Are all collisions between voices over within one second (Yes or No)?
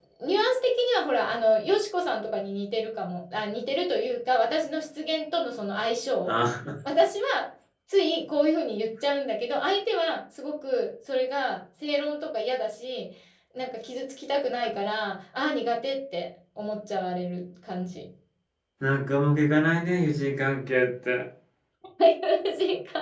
Yes